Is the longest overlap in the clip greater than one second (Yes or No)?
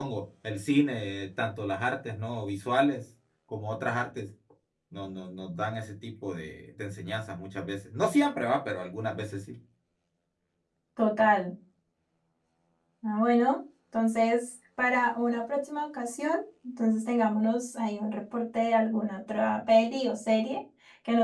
No